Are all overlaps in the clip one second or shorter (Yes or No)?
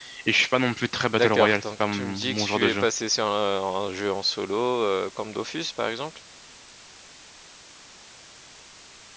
No